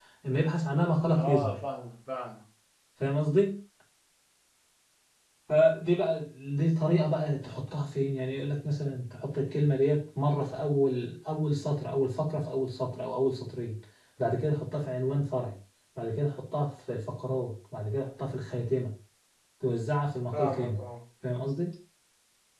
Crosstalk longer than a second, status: none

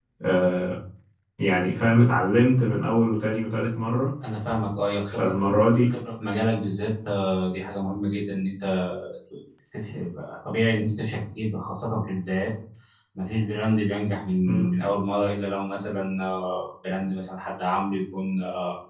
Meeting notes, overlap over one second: none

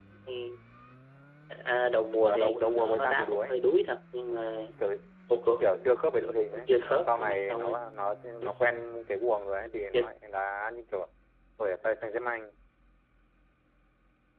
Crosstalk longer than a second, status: present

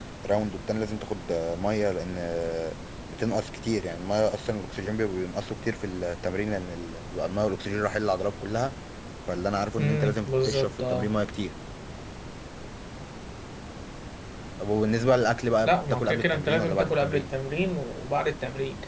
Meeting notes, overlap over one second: present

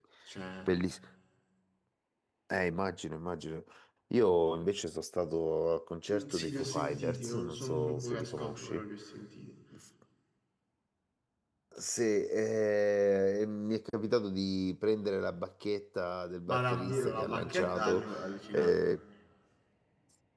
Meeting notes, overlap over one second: present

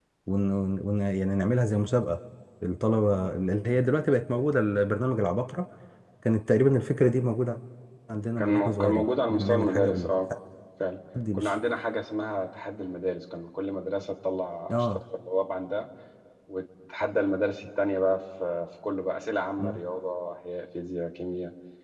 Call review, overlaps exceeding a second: present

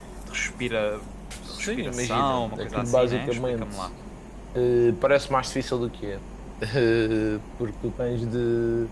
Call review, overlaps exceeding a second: present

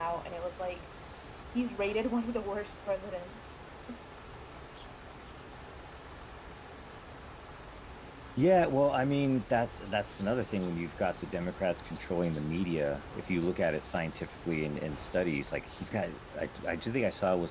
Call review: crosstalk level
none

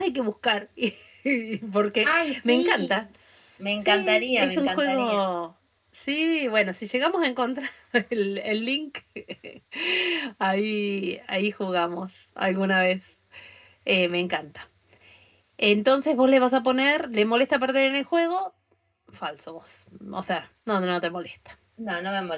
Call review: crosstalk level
present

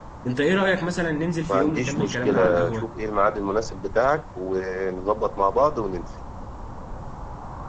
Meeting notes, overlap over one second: present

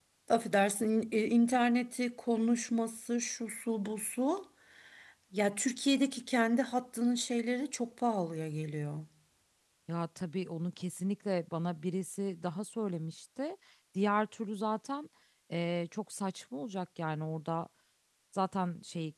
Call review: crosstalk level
none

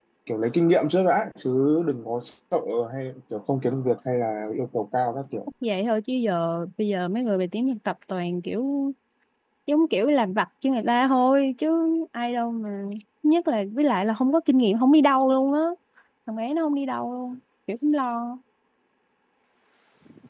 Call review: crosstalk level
none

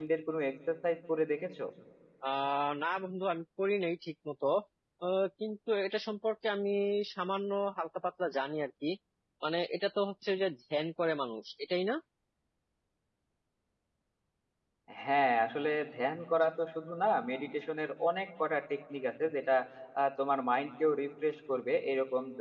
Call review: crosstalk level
none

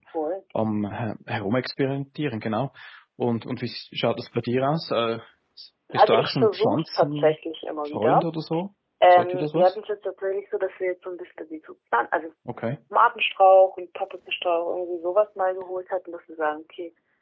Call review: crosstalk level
present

